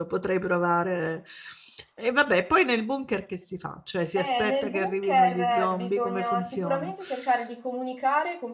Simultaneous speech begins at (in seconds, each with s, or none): 4.2 s